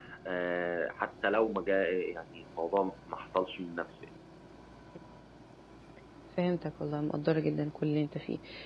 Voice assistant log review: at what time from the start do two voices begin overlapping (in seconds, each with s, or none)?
none